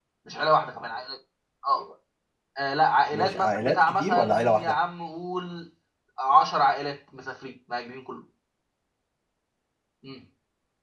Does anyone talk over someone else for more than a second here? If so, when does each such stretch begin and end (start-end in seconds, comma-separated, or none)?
3.1-4.8